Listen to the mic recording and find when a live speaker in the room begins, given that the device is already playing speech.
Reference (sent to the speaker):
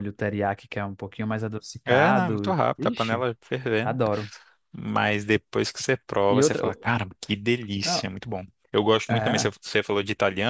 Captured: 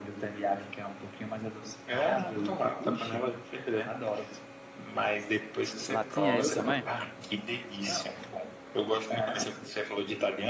5.9 s

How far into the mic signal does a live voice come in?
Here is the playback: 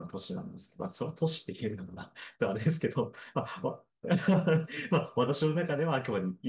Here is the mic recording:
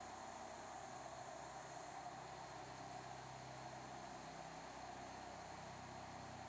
none

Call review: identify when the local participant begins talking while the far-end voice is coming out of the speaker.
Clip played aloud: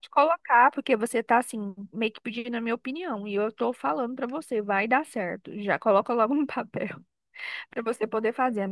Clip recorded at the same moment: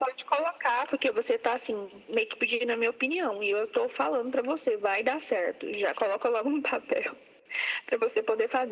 none

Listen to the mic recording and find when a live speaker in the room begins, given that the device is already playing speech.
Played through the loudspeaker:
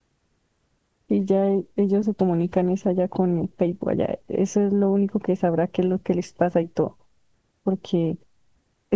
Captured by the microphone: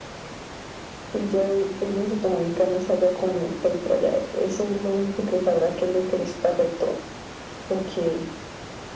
none

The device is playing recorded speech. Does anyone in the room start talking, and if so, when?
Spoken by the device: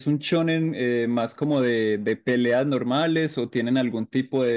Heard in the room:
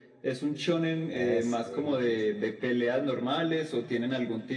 1.1 s

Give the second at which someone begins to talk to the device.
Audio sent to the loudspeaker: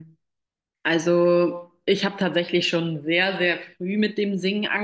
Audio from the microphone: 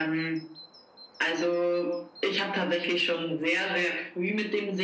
none

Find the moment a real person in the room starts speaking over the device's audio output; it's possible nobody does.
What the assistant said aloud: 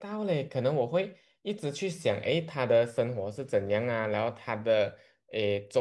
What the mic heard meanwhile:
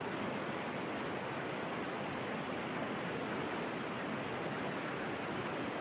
none

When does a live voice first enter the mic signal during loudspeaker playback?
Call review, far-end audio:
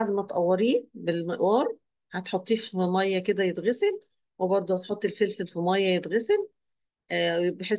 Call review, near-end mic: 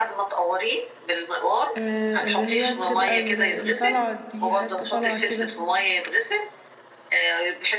1.8 s

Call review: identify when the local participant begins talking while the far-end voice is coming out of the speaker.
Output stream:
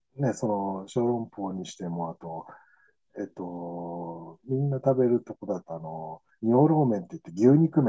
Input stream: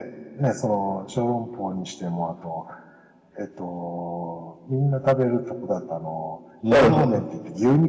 6.7 s

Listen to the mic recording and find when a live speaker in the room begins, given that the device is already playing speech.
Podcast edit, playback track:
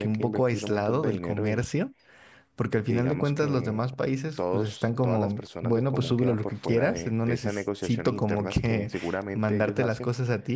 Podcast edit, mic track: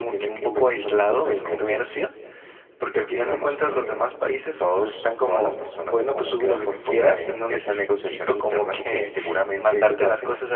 none

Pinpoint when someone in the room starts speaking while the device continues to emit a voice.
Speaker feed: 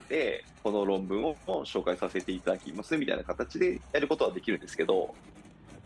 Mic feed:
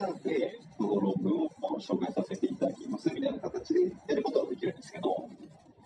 none

